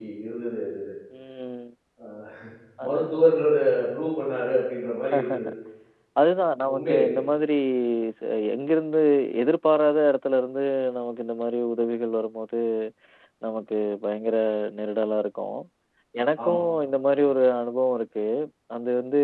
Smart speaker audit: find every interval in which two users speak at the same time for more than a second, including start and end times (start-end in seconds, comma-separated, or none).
none